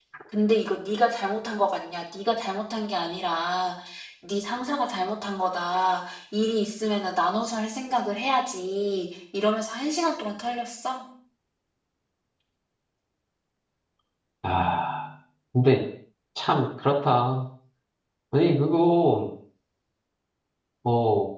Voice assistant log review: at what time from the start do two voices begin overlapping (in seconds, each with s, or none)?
none